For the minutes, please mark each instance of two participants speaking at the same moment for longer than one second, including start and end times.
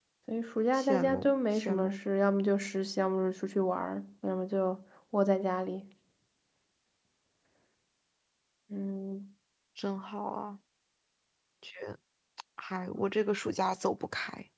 0.7-2.0

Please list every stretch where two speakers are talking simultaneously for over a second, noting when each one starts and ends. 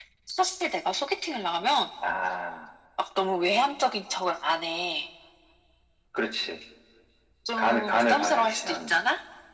7.6-8.9

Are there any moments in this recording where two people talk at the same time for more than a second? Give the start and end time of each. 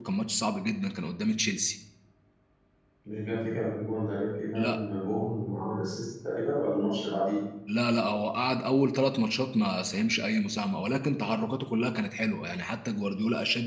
none

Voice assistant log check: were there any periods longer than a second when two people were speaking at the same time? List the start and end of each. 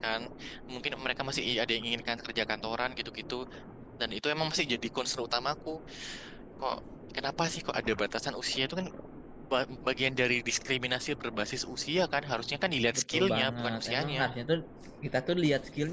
13.0-14.2

